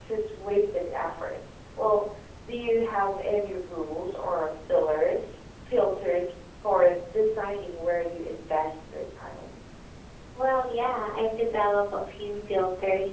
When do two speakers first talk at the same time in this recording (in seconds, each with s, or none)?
none